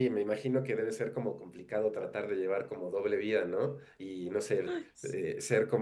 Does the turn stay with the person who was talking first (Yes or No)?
Yes